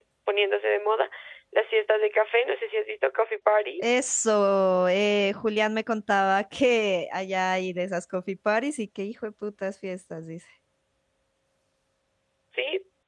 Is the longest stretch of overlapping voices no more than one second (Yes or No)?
Yes